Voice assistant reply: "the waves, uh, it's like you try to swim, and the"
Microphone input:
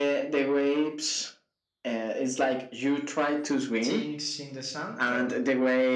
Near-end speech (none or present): present